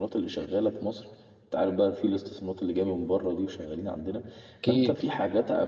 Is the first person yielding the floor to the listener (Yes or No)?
No